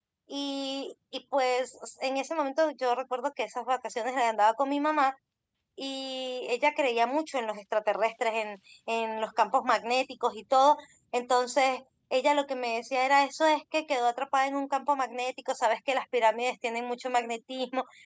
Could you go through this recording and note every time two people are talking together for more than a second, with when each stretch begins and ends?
none

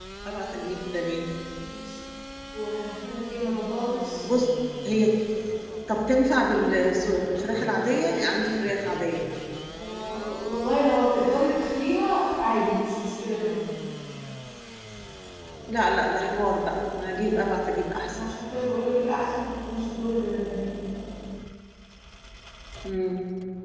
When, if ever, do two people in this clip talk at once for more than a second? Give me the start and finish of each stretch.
none

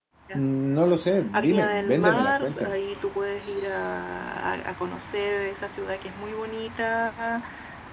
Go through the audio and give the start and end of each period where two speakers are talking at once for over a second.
1.3-2.8

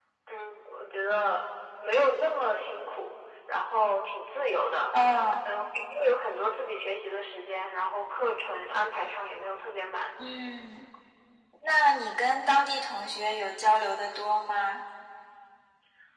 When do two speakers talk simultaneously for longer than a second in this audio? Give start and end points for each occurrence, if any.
none

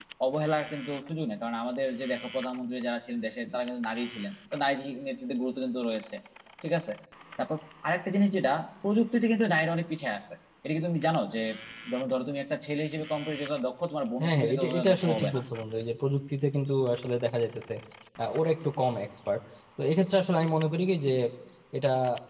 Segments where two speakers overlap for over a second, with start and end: 14.2-15.4

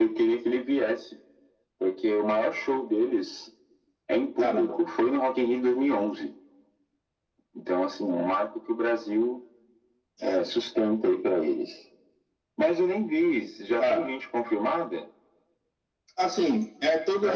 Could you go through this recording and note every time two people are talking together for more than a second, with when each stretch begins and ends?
none

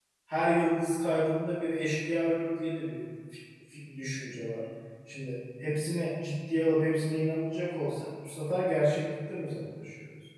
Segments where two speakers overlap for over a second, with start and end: none

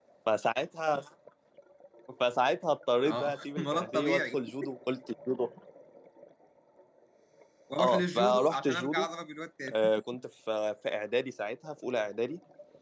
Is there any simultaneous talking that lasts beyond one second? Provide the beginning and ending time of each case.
3.0-4.4, 7.8-9.1

